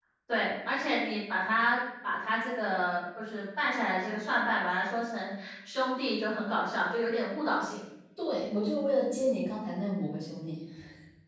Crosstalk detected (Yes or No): No